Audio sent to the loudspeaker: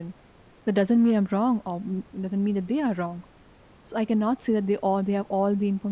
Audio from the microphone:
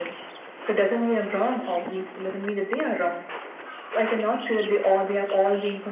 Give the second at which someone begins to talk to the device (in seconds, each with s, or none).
none